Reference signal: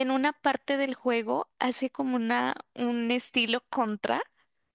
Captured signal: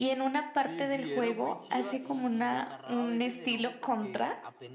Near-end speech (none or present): present